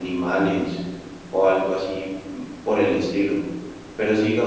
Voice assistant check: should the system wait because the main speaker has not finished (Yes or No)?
Yes